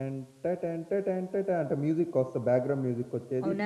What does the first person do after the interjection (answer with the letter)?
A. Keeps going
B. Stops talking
B